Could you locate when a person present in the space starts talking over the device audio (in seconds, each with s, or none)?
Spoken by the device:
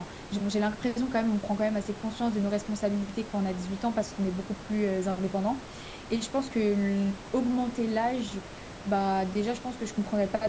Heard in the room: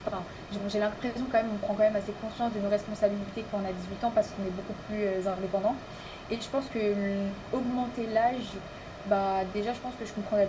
none